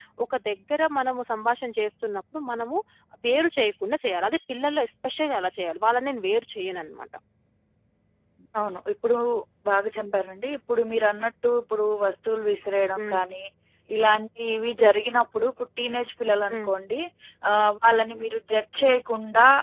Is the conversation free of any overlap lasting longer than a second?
Yes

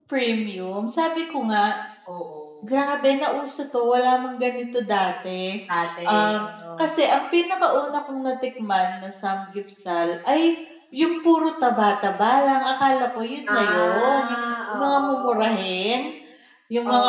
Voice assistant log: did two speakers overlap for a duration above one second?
Yes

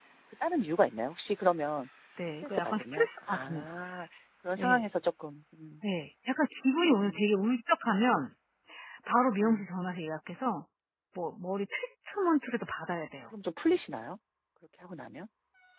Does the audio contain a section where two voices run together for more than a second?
Yes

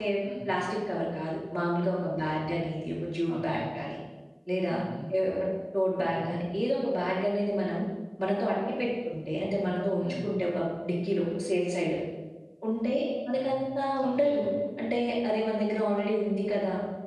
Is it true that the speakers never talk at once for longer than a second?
Yes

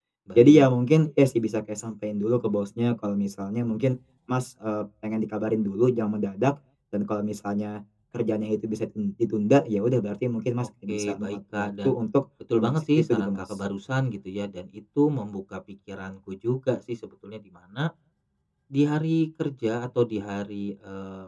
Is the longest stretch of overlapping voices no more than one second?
No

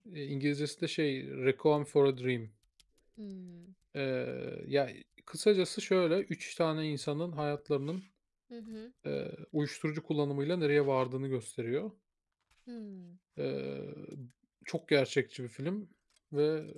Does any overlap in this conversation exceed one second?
No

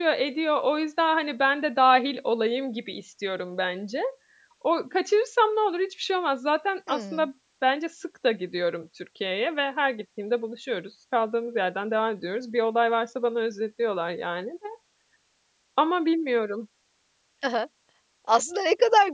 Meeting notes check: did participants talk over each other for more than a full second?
No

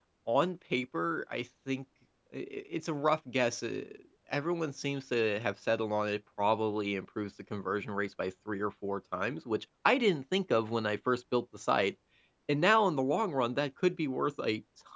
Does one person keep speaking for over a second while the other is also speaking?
No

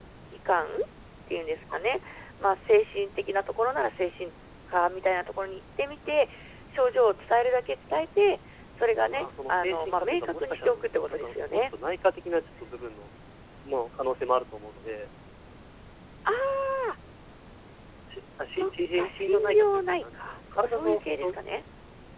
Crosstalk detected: Yes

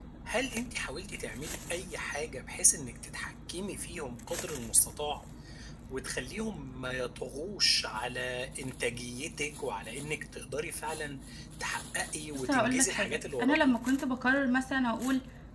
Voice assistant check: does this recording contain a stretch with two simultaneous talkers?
Yes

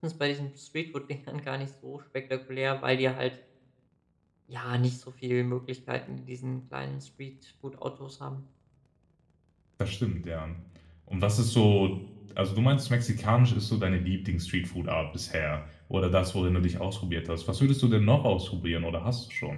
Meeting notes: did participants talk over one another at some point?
No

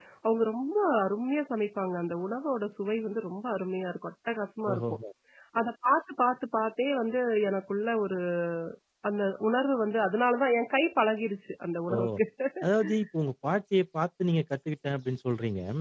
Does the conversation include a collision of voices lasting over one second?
No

